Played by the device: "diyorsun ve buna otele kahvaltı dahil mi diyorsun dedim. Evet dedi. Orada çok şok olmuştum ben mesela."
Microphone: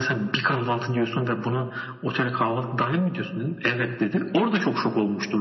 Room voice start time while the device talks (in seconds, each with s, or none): none